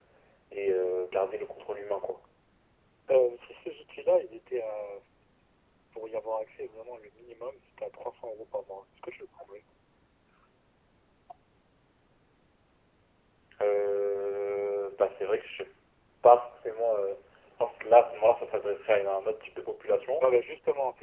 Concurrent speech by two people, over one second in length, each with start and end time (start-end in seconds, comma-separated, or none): none